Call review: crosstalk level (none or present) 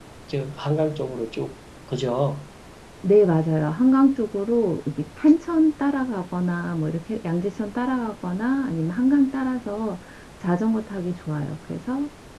none